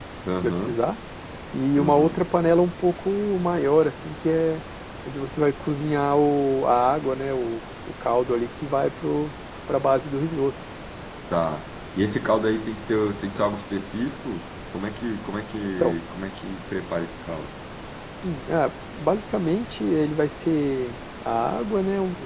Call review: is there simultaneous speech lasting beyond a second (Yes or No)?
No